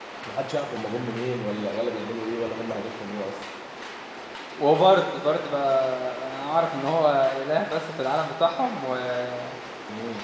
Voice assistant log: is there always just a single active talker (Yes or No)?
Yes